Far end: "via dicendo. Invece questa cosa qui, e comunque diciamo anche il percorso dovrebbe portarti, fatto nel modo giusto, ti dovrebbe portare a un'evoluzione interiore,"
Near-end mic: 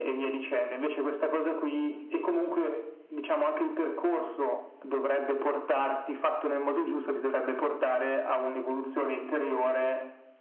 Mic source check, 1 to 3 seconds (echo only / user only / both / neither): echo only